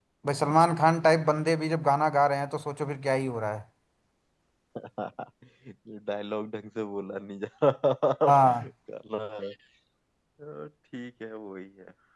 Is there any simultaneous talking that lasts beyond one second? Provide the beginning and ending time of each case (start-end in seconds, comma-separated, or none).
none